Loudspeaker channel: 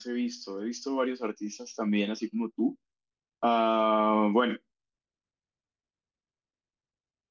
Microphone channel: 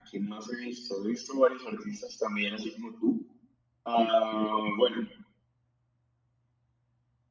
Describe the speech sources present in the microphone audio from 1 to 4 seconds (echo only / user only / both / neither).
echo only